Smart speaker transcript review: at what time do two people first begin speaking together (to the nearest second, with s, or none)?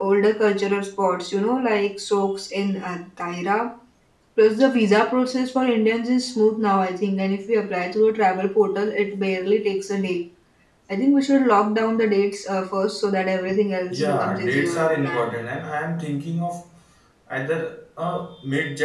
14 s